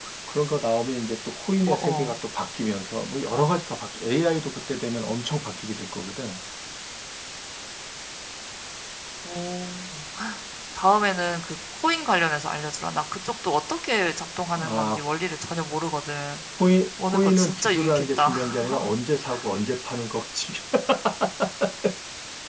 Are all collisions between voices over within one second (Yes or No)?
No